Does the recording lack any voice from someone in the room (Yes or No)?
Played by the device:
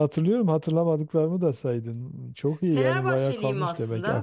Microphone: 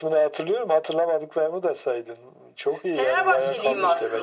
No